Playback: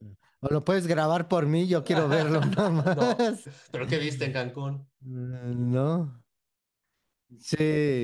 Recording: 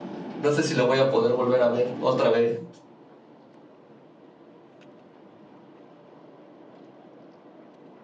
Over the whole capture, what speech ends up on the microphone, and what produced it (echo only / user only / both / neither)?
user only